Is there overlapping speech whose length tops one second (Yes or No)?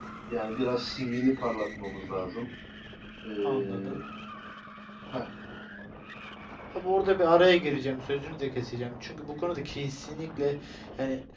No